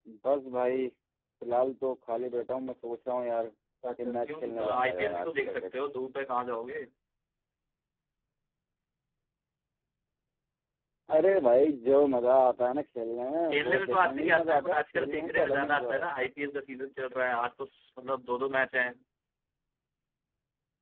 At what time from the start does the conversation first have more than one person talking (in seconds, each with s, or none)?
4.0 s